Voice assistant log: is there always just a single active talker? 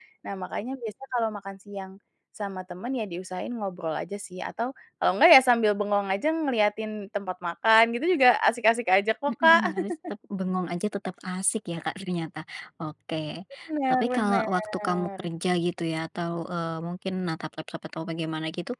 No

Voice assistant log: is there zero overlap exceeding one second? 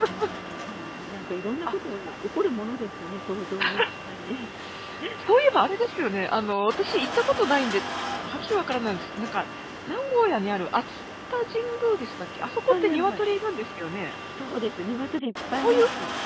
Yes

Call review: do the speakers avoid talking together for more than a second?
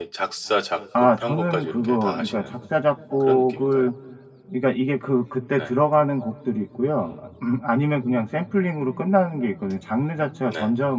No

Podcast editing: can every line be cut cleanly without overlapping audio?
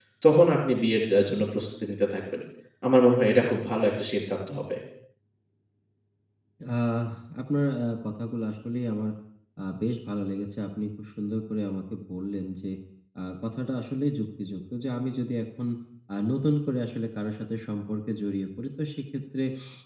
Yes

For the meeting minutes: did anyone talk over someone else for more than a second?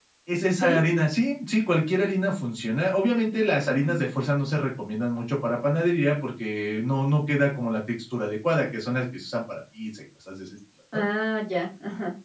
No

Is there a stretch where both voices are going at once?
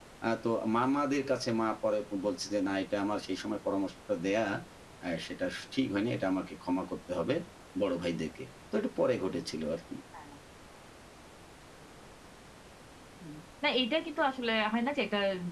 No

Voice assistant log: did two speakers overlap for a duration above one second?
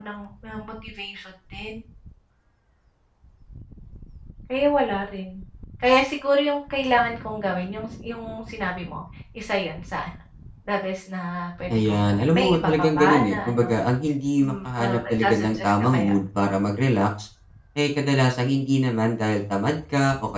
Yes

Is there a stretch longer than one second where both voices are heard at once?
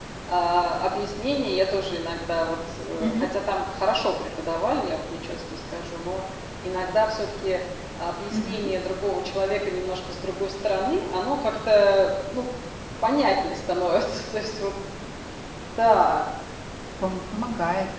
No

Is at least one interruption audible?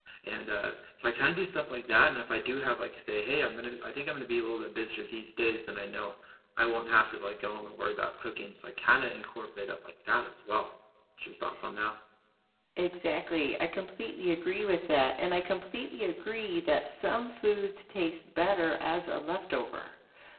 No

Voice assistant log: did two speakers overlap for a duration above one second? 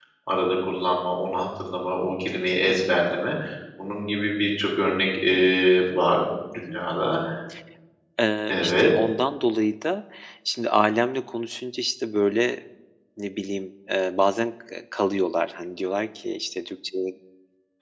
No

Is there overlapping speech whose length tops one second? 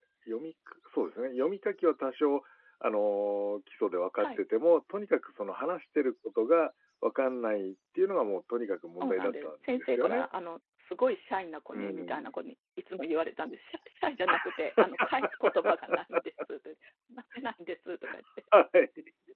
Yes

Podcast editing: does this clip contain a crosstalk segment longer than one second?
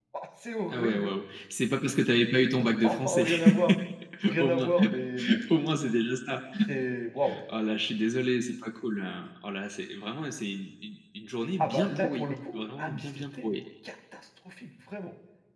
Yes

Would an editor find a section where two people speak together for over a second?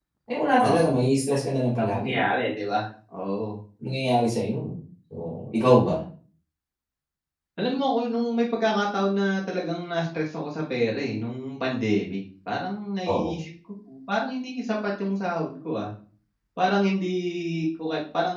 No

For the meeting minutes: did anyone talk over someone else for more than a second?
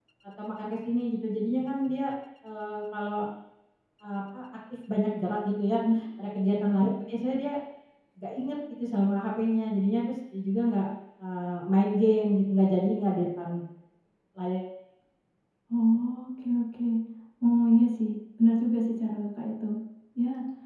No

